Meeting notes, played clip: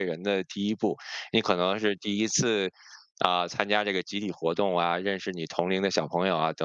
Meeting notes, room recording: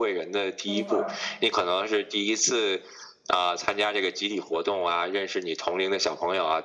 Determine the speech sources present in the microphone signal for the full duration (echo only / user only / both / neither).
both